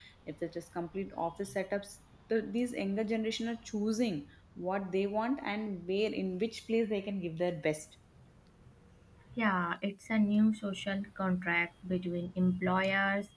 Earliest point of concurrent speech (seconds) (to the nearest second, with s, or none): none